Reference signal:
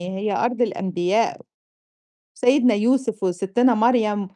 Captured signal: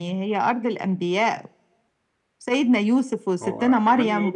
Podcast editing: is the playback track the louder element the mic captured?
Yes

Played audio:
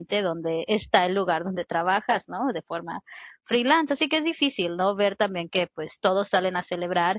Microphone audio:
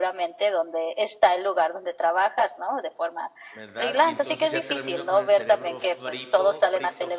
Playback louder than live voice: Yes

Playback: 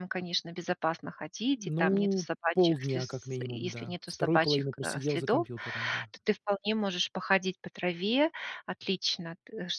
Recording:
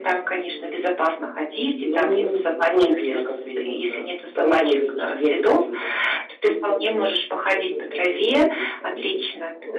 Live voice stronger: No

